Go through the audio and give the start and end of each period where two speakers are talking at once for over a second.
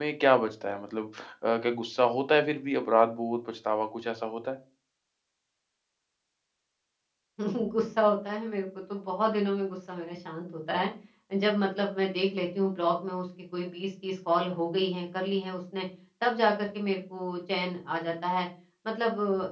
none

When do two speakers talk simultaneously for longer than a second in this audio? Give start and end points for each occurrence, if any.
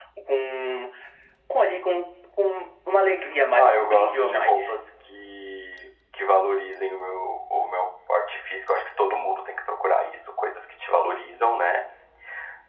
3.5-4.8

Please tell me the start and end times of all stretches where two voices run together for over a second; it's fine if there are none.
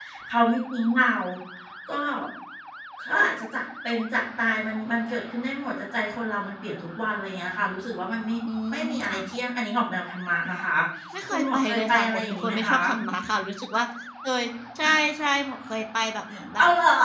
11.3-12.8

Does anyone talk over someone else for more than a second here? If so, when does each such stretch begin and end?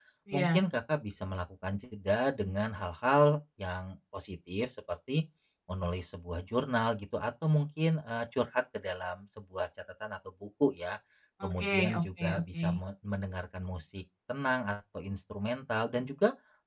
11.4-12.6

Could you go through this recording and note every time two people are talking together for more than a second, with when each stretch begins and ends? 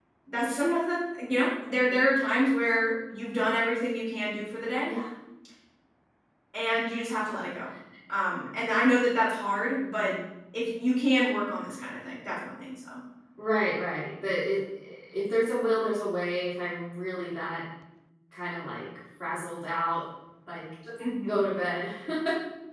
none

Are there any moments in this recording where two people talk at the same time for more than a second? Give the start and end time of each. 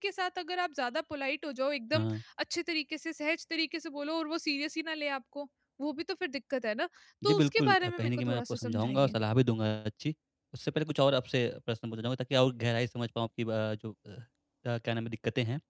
7.2-9.2

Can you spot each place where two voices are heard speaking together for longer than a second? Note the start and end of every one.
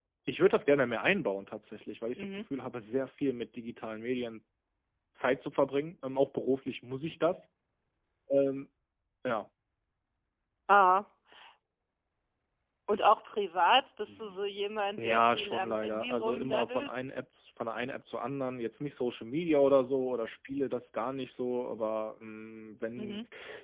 15.0-16.9

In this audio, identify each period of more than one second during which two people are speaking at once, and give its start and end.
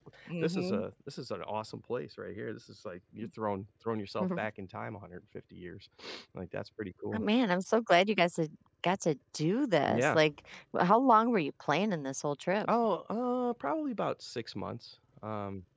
none

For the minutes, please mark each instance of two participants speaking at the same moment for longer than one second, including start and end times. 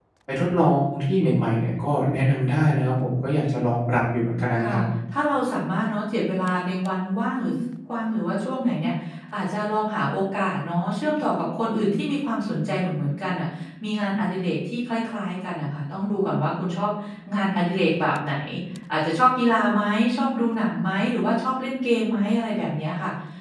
none

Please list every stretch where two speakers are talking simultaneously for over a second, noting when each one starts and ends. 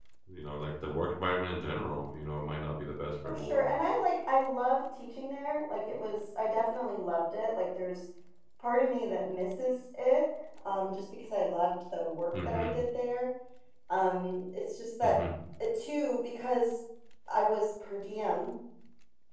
none

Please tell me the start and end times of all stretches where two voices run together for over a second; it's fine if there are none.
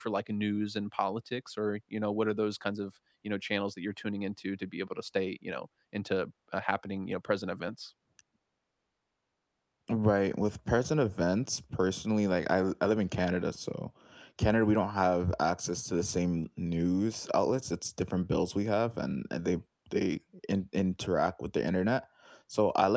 none

